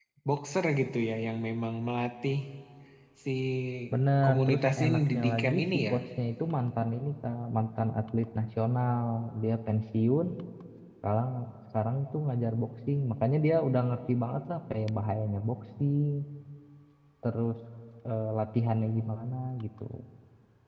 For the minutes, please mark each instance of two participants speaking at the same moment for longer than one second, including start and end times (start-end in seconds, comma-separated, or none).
4.2-5.9